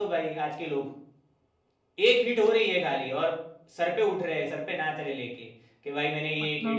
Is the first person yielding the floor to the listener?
No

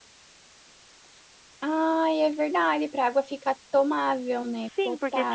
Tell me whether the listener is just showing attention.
No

